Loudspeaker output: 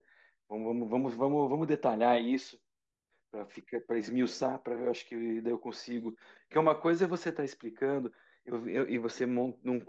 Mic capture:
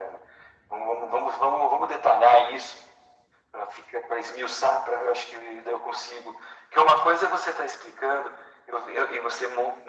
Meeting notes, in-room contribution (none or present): none